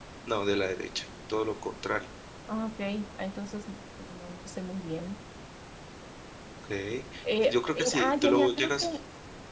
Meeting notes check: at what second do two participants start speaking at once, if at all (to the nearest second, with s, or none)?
7 s